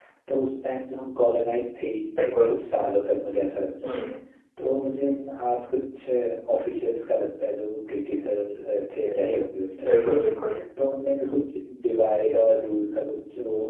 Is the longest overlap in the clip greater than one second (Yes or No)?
No